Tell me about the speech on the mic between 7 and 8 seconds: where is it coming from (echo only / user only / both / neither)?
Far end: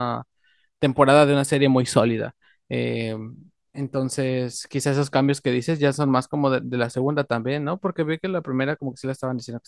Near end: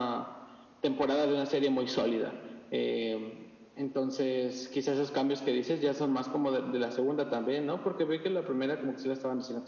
echo only